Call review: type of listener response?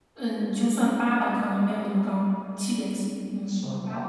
taking over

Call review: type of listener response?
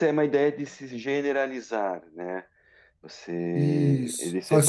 taking over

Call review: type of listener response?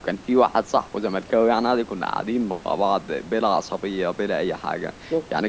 listening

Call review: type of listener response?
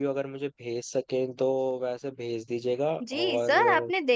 taking over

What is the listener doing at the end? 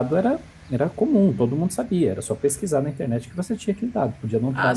taking over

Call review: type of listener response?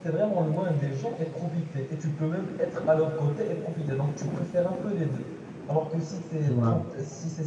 listening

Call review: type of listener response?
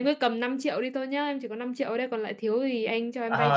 taking over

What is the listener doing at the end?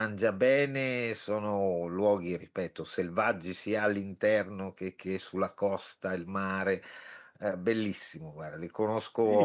taking over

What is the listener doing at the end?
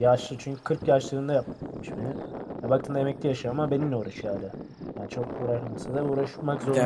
taking over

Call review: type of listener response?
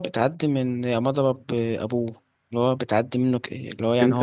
taking over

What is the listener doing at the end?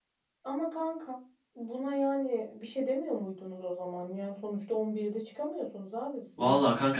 taking over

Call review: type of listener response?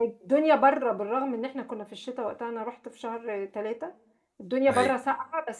listening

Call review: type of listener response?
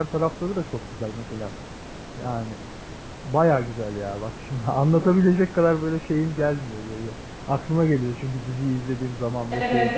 taking over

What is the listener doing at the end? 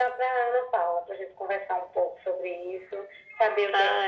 listening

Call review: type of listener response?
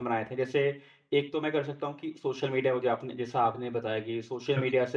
listening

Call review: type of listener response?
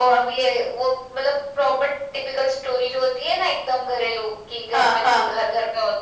listening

